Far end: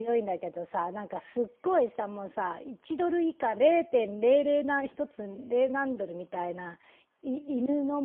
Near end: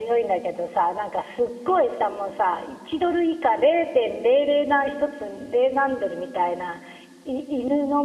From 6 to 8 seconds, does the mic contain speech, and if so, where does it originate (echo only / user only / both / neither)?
echo only